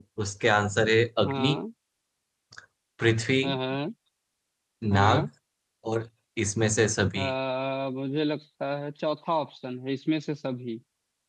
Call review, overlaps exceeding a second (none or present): none